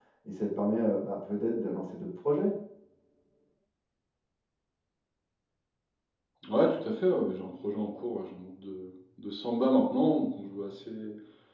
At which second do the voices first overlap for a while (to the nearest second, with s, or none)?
none